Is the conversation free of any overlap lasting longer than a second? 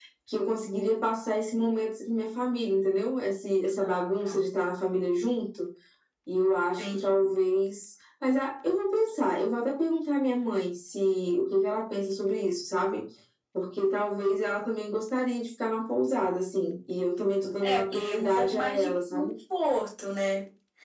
No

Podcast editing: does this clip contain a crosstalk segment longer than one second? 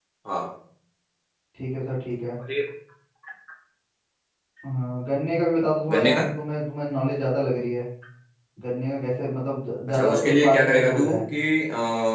Yes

